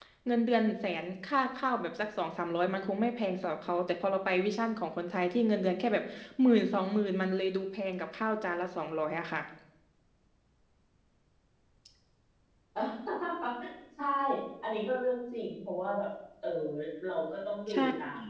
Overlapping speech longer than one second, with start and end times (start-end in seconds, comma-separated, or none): none